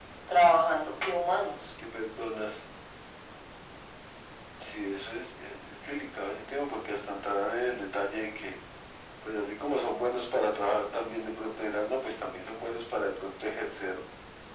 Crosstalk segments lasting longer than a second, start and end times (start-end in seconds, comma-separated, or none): none